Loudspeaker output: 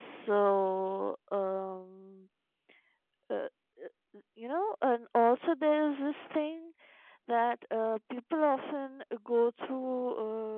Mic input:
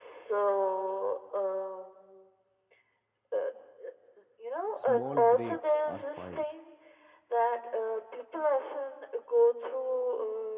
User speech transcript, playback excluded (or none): small breaks are fine.